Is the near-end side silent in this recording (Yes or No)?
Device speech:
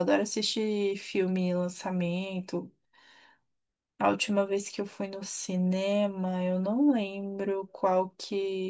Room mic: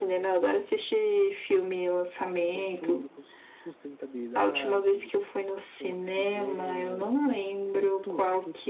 No